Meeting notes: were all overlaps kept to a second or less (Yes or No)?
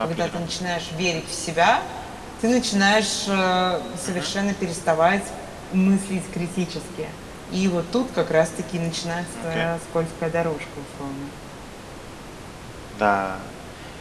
Yes